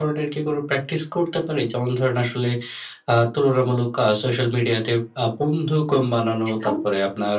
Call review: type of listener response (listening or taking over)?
listening